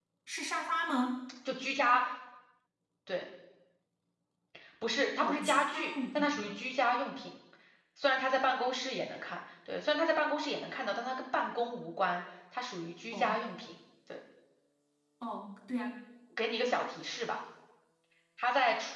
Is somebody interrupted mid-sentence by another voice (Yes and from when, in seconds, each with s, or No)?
Yes, from 5.2 s